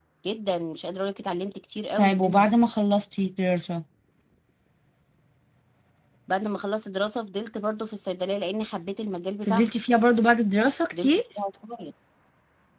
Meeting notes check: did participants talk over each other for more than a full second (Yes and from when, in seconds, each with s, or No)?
No